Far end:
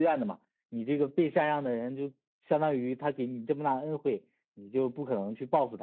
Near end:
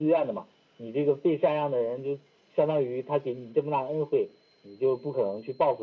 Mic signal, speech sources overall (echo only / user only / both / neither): echo only